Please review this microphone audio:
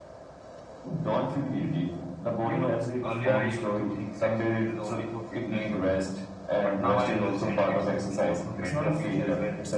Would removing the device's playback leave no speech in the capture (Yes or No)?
No